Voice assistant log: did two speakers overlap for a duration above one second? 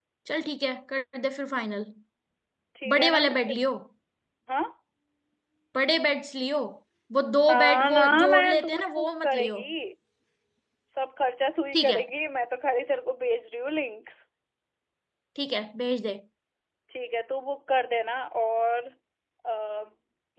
Yes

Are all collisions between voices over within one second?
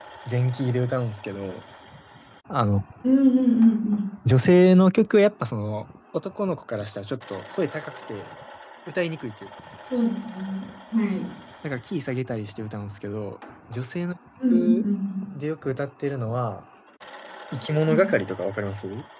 Yes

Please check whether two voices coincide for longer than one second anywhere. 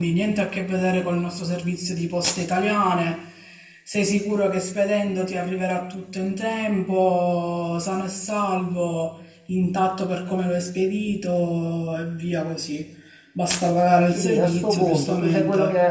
Yes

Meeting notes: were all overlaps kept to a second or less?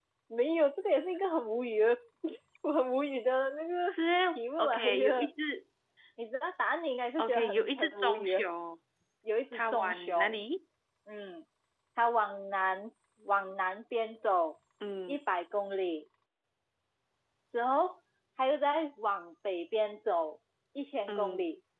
No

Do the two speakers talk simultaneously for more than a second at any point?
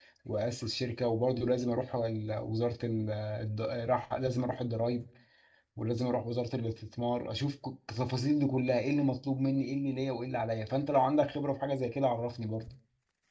No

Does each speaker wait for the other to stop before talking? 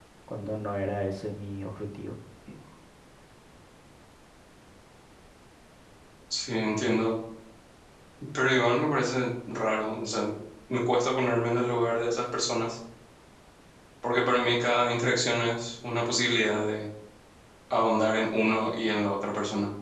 Yes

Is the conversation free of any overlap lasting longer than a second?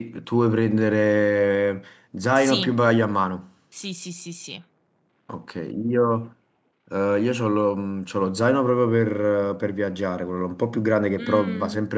Yes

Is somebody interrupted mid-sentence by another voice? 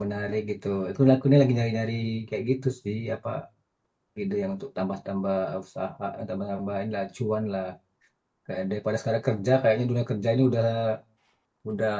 No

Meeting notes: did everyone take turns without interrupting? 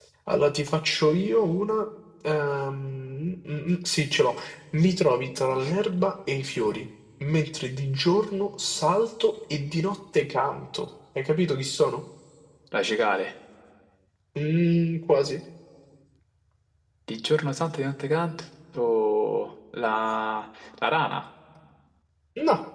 Yes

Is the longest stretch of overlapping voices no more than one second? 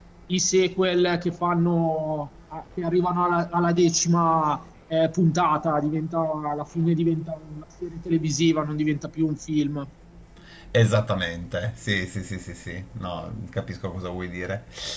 Yes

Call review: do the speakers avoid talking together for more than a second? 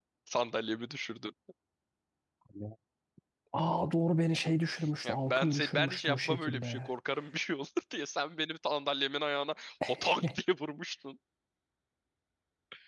No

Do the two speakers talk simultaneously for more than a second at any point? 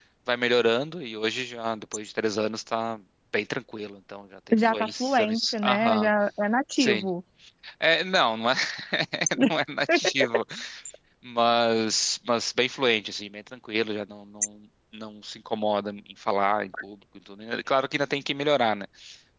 Yes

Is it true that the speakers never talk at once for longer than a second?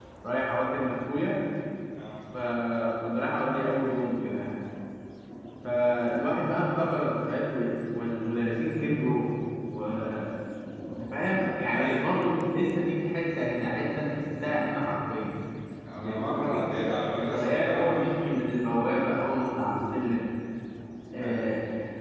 No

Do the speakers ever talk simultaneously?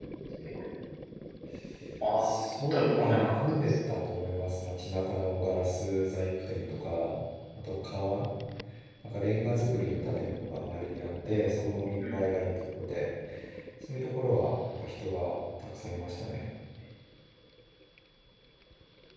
Yes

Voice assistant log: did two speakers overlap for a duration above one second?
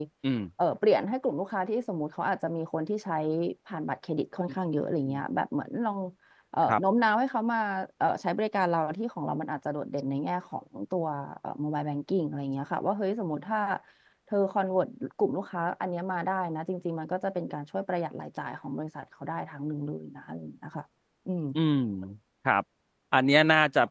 No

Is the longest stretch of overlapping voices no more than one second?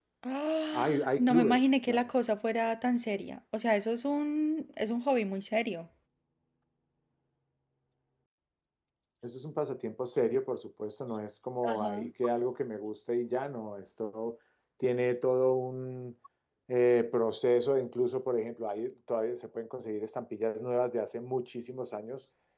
No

